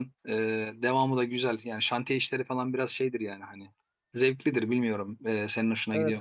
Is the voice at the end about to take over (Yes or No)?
Yes